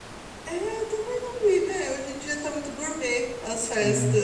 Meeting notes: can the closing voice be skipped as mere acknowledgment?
Yes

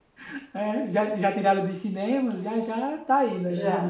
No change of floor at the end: No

